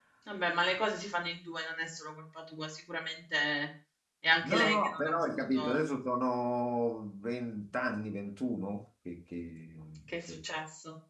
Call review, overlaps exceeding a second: present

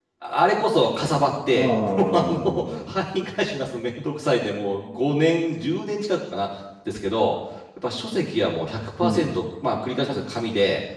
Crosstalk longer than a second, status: present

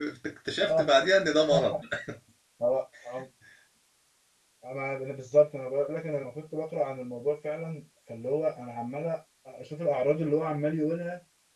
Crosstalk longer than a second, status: none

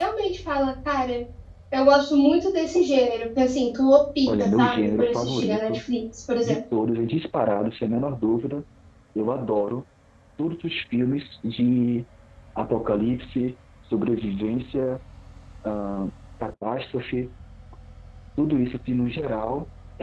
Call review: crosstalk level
present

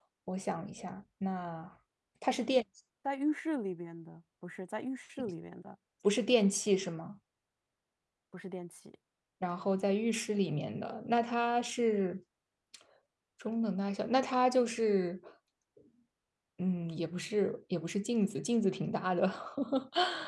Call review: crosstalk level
none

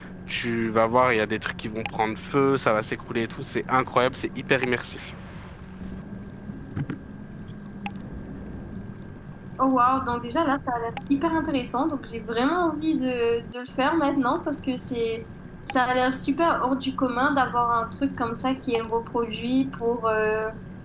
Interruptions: none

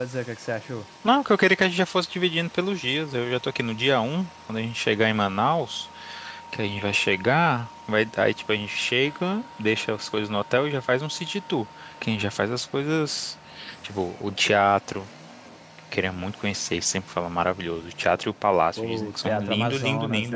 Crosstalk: present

